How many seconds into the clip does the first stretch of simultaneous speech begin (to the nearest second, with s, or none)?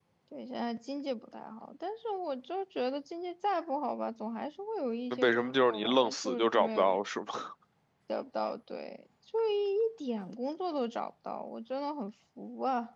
5 s